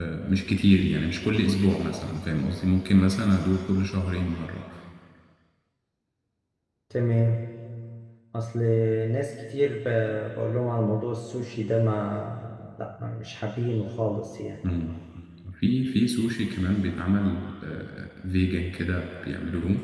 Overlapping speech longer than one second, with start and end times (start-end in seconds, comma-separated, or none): none